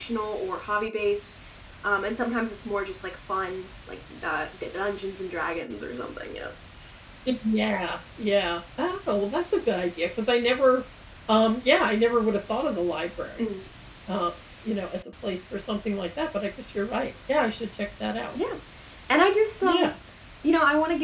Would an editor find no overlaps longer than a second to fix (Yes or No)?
Yes